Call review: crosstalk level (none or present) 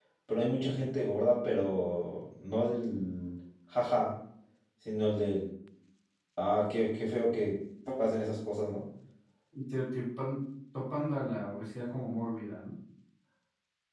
none